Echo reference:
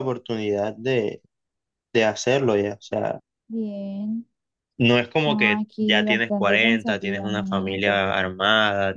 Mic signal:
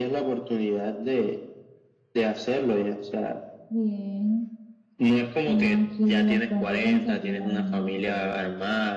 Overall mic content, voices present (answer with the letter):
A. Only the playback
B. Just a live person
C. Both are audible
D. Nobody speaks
A